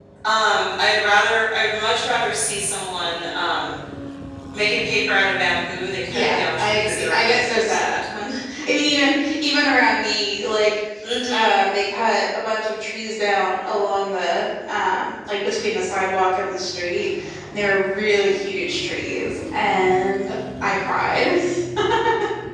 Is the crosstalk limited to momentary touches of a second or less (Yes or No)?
No